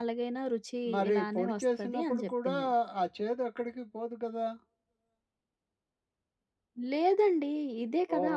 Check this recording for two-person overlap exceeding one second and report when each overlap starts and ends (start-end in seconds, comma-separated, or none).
0.9-2.6